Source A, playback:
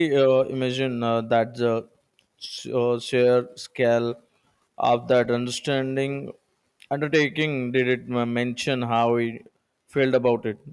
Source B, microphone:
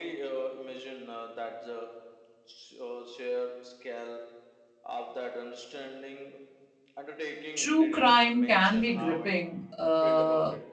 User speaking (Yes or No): Yes